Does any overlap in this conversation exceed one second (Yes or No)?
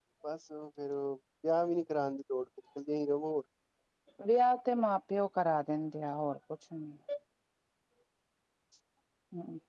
No